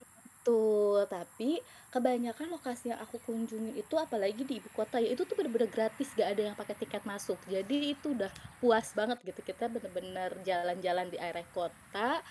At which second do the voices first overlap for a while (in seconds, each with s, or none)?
none